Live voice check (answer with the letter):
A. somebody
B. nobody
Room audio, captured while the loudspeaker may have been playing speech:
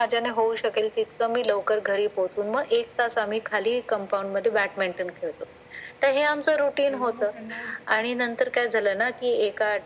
A